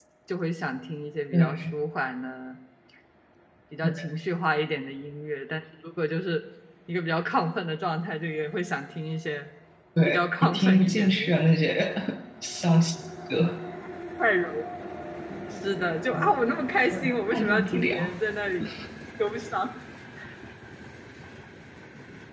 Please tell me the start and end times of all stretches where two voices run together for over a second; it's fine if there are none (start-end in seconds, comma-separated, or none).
10.1-11.6, 16.9-18.1